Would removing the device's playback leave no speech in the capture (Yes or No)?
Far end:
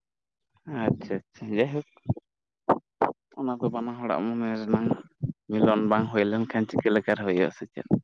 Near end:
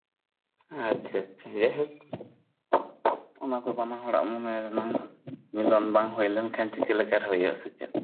Yes